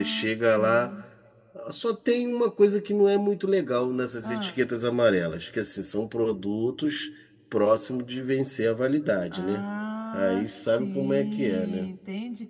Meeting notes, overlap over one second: present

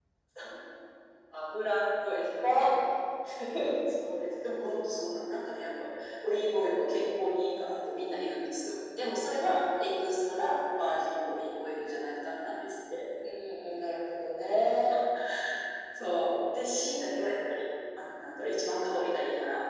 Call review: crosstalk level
none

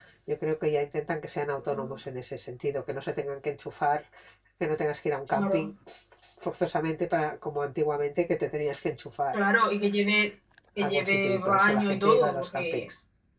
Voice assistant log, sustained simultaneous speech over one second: present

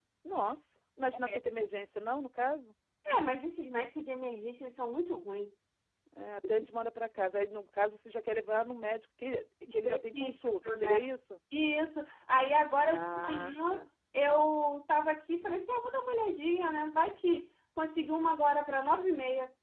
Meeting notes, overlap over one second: present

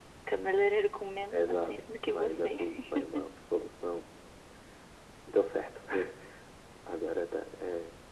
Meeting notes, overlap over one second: present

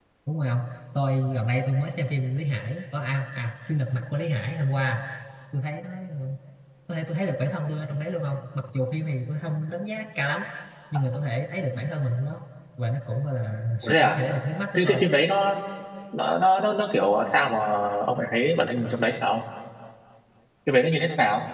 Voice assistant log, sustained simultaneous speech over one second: none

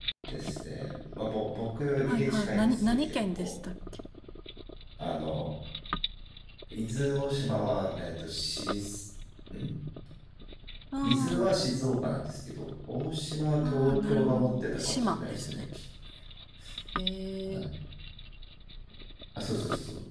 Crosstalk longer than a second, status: present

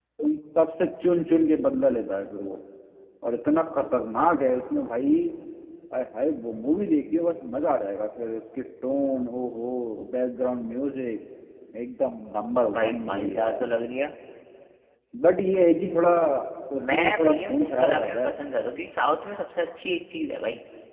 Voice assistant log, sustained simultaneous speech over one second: present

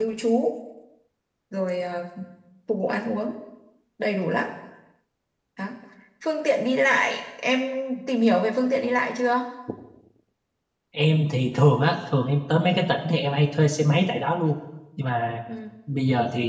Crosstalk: none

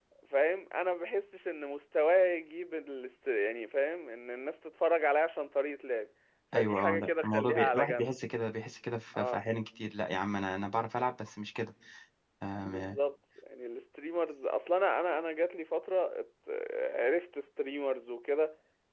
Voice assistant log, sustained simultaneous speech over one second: present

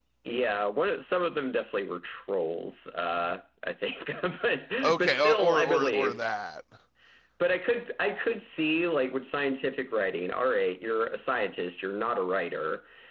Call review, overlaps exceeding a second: present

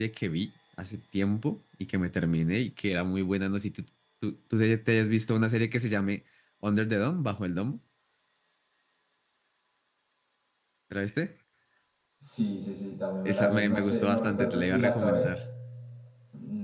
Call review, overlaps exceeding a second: present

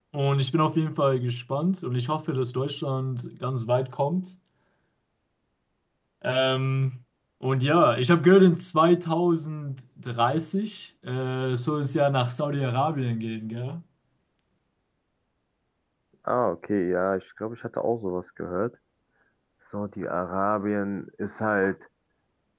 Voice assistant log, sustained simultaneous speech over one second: none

